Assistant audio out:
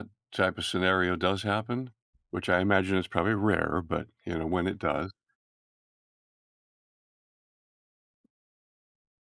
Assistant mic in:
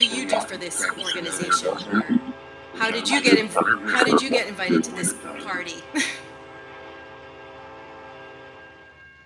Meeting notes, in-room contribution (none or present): present